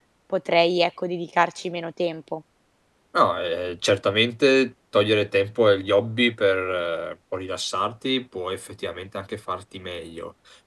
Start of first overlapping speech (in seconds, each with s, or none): none